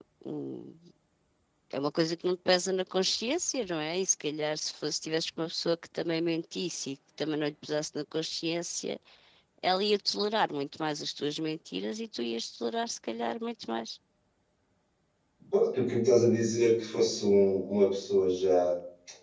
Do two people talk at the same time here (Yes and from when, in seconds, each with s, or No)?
No